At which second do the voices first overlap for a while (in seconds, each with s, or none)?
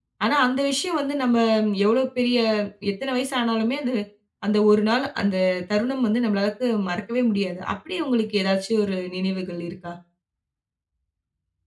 none